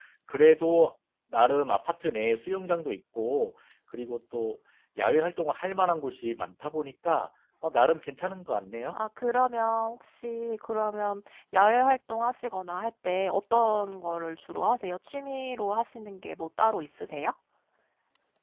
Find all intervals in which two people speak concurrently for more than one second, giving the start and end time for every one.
none

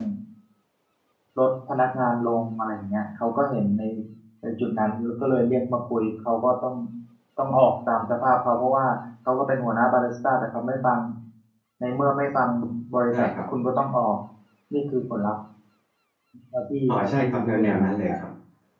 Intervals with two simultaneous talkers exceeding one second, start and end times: 16.9-18.2

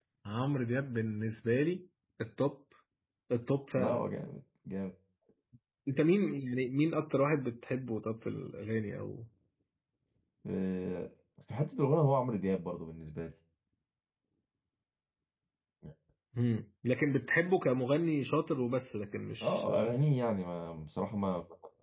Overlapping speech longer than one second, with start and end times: none

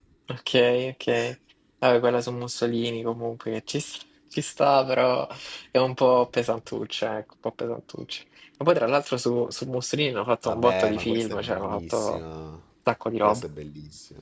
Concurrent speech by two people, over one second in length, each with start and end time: 10.4-12.2

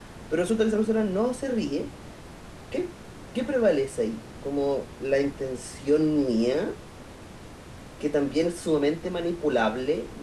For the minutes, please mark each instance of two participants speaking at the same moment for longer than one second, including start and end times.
none

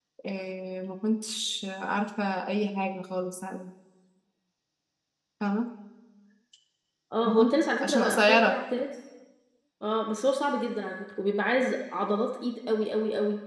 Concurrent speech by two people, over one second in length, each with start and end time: 7.2-8.6

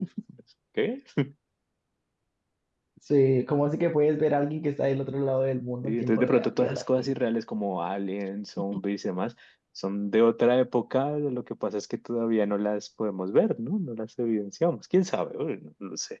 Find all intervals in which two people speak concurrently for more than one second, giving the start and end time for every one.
5.8-7.1

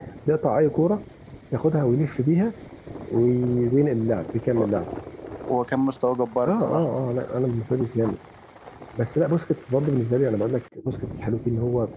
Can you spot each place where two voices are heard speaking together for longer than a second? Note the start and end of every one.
none

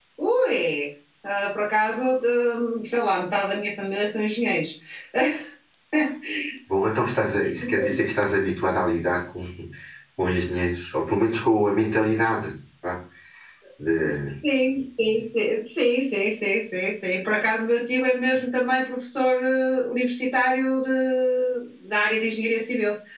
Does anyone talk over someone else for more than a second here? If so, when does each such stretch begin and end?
none

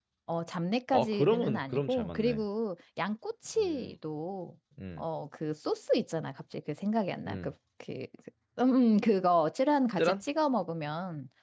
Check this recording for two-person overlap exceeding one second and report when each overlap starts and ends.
0.9-2.4

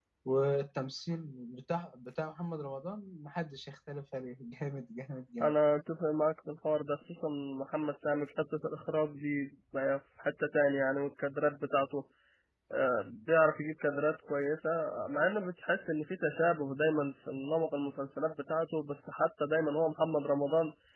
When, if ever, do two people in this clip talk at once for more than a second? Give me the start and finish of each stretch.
none

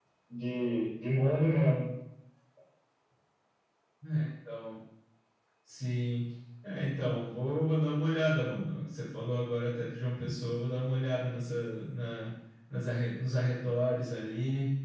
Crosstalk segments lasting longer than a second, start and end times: none

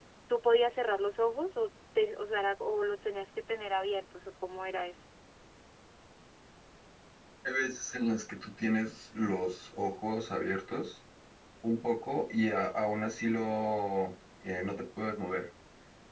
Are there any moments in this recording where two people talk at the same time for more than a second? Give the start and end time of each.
none

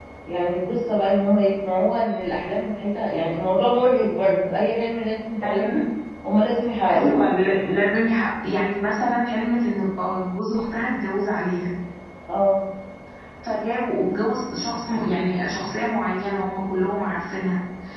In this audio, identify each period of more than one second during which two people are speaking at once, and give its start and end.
none

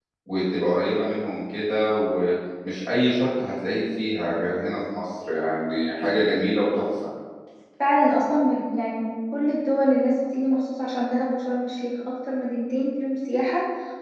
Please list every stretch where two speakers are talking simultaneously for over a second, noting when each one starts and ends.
none

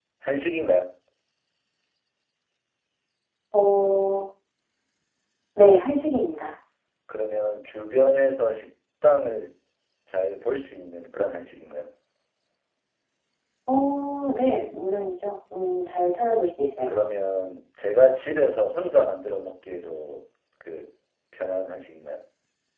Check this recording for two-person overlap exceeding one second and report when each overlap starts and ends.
none

